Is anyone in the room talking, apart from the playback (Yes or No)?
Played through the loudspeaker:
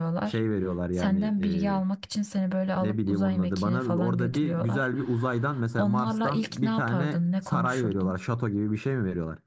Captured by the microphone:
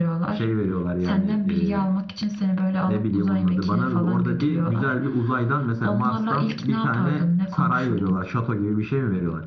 No